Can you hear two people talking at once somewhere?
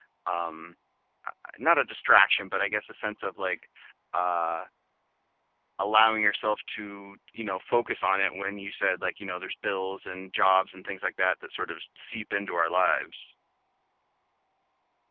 No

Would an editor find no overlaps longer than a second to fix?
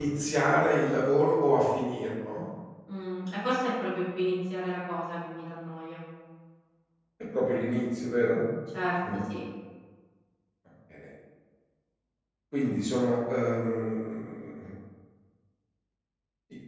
Yes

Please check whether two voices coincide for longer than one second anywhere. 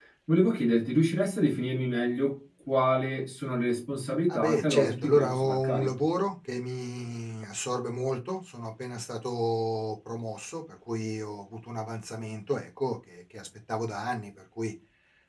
Yes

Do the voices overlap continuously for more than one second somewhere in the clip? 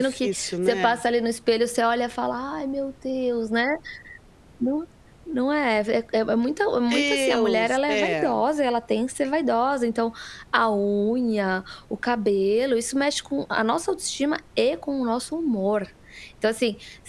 Yes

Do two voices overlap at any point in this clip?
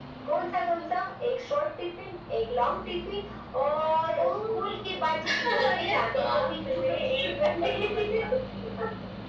Yes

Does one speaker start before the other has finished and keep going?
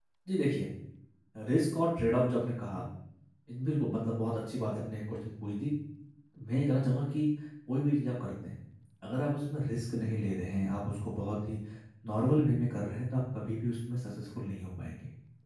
No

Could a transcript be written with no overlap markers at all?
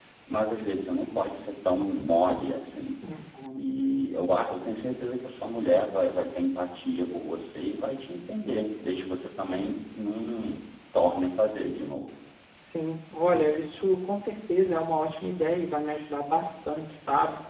Yes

